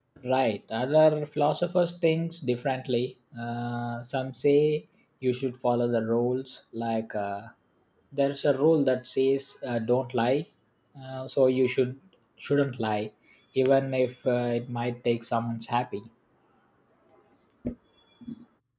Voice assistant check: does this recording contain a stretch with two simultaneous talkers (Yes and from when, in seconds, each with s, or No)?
No